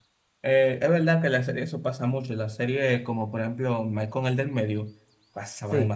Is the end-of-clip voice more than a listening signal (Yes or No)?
Yes